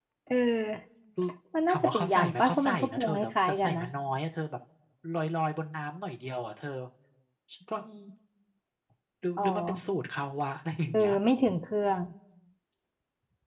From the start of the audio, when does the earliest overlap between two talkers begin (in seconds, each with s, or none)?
1.7 s